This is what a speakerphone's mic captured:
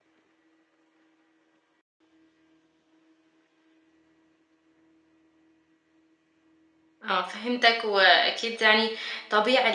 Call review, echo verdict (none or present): none